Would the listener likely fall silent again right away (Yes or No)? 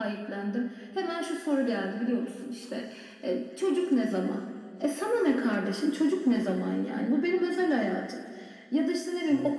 Yes